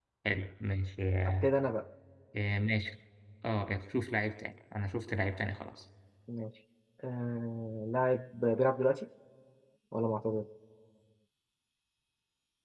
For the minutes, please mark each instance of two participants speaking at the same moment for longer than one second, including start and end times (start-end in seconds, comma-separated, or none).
none